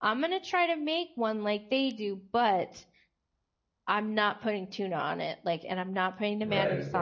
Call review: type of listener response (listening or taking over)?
taking over